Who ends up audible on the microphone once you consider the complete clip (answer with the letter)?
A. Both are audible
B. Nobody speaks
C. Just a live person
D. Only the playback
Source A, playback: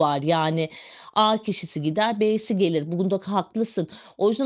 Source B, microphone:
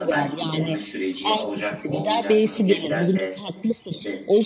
A